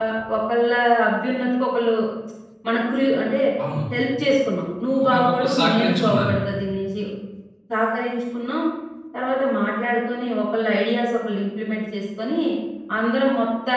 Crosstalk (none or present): present